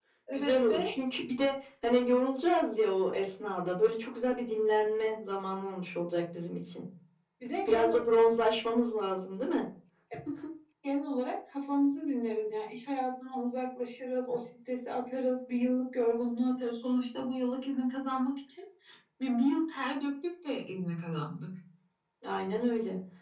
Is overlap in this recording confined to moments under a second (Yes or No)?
Yes